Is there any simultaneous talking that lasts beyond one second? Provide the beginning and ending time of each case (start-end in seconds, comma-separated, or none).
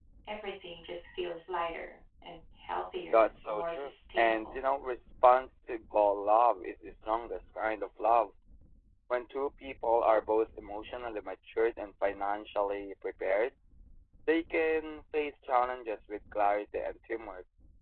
3.1-4.6